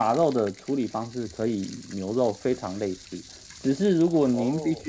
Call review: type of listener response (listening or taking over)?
listening